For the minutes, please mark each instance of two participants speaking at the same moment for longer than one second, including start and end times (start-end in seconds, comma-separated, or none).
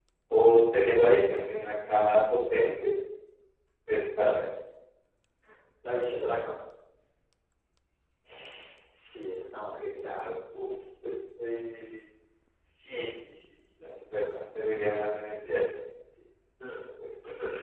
none